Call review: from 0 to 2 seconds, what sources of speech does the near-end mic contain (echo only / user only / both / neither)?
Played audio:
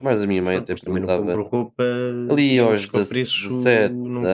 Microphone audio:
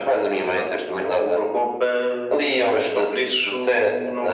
echo only